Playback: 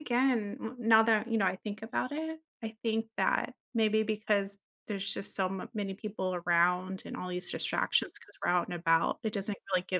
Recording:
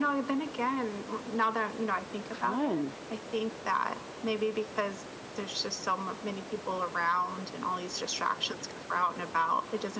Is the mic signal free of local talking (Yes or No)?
No